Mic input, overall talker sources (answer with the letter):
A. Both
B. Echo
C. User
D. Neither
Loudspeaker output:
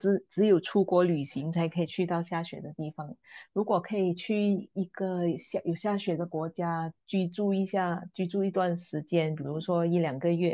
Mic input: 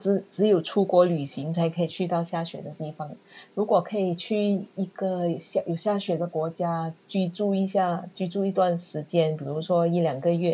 B